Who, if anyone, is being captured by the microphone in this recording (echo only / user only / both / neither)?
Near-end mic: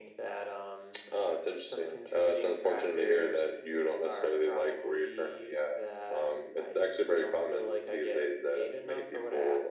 echo only